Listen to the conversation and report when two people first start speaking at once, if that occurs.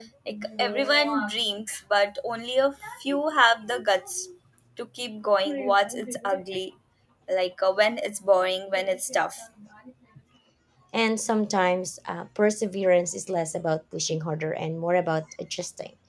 none

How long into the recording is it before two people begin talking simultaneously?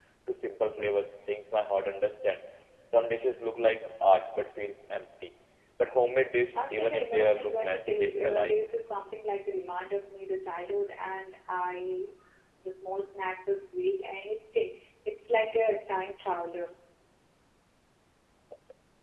6.5 s

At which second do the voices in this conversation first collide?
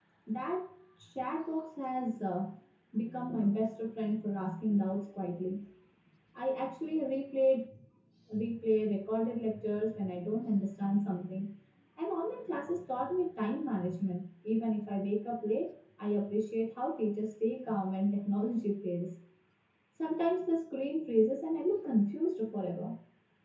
none

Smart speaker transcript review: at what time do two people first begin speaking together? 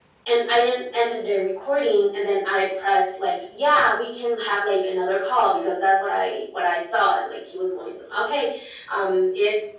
none

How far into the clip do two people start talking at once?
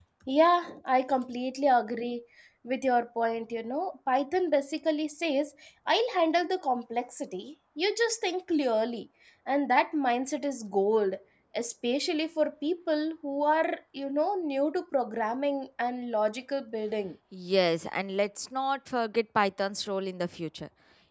none

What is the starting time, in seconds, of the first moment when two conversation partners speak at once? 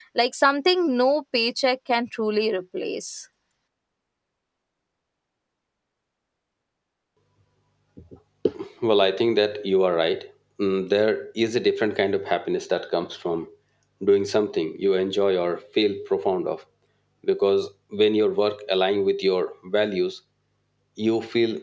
none

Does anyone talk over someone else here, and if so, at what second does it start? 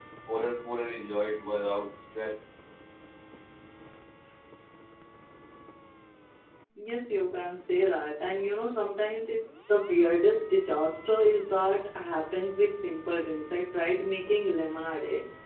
none

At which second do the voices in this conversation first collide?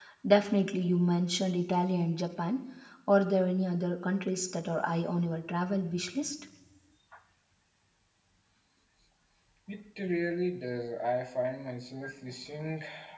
none

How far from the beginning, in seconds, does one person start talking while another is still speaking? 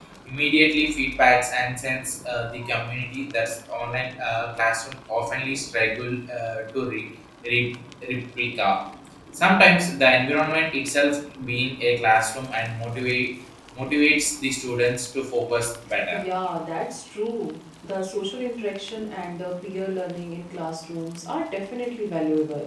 none

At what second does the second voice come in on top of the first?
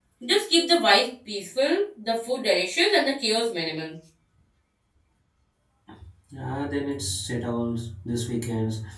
none

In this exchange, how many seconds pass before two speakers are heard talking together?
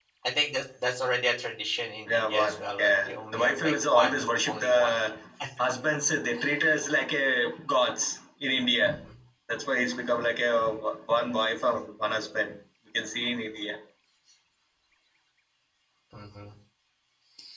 2.1 s

